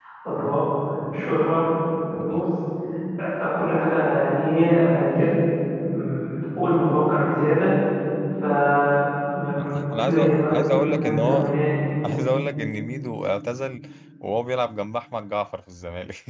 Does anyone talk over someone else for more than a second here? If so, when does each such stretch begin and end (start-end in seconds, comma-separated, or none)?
9.6-11.5